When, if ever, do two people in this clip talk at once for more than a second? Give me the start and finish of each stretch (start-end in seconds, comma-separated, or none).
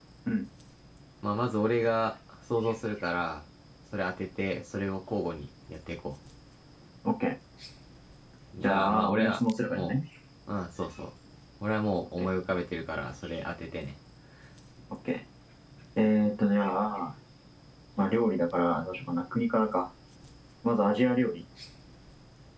8.6-10.0